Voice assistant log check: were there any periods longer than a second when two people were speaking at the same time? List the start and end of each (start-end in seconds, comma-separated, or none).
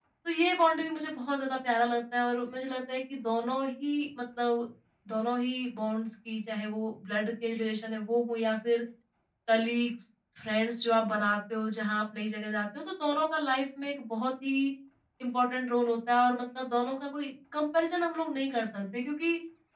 none